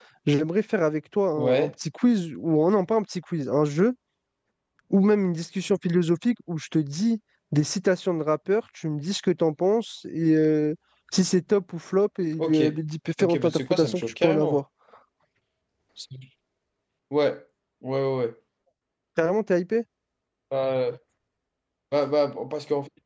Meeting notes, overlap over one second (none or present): present